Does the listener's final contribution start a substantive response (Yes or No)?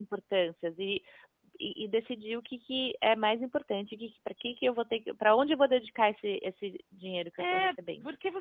Yes